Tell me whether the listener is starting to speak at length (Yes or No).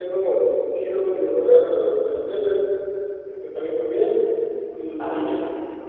No